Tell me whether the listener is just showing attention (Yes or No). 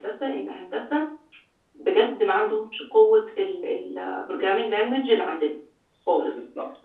Yes